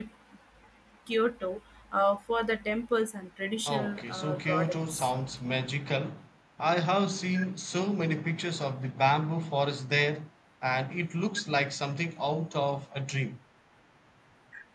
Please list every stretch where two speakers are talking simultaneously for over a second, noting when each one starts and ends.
3.7-5.1

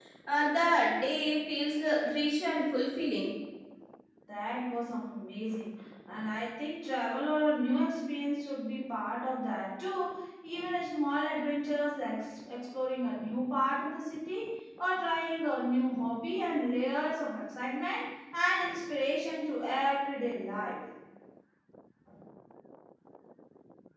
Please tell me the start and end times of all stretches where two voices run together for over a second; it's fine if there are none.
none

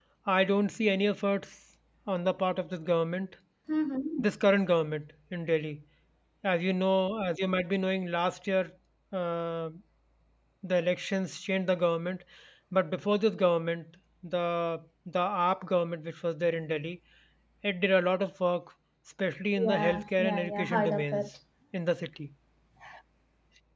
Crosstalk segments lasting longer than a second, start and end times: 19.6-21.3

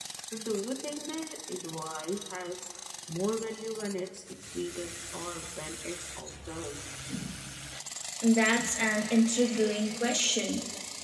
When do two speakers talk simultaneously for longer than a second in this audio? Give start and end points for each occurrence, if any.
none

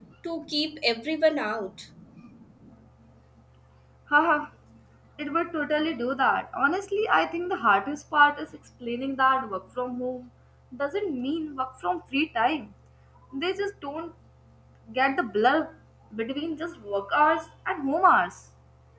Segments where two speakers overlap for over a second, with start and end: none

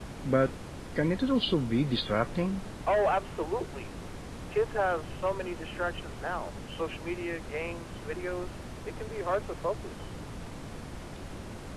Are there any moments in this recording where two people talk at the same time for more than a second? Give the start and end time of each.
none

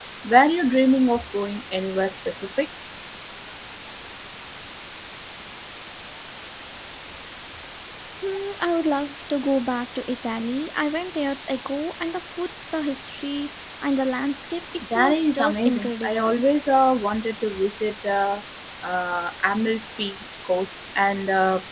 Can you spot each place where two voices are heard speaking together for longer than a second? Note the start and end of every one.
14.9-16.4

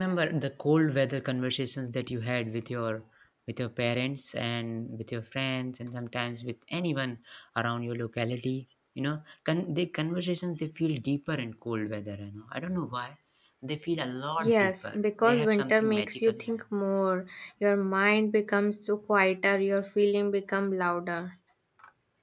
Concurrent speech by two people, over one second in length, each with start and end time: 14.4-16.5

